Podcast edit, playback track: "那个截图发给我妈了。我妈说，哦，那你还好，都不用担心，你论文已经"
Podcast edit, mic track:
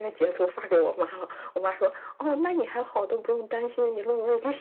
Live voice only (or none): none